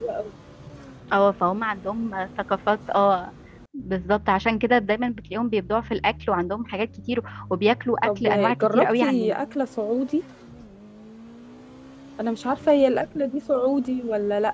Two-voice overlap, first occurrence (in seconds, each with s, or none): 8.0 s